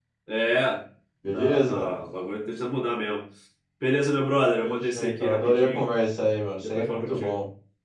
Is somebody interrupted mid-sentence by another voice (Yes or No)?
Yes